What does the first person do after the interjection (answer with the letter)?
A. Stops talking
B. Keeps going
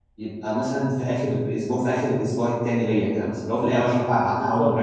A